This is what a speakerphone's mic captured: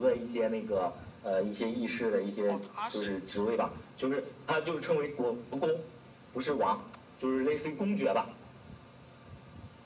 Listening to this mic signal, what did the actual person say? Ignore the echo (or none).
哦，他是